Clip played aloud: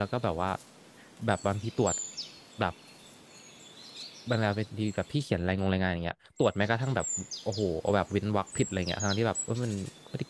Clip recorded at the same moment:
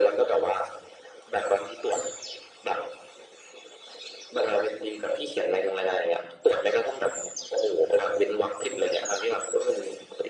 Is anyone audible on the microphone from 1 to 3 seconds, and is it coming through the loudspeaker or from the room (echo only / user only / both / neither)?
echo only